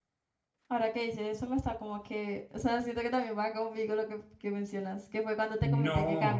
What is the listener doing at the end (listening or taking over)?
taking over